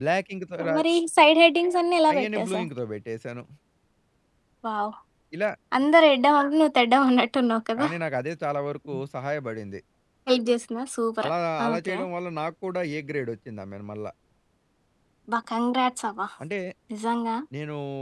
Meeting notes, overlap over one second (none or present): none